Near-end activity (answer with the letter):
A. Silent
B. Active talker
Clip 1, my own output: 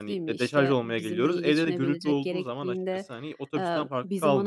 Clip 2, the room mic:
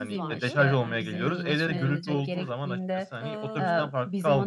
B